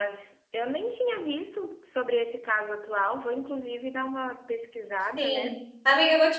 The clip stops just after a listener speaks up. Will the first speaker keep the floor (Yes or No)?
No